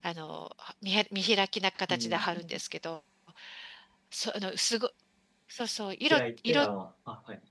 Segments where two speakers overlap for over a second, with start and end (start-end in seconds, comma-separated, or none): none